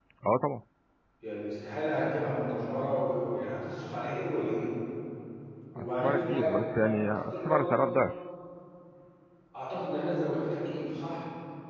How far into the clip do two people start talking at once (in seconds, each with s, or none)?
5.8 s